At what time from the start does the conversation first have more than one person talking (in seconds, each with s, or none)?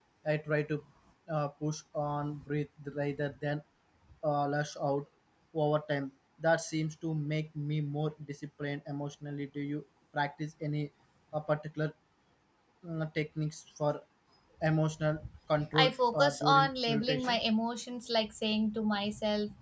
15.7 s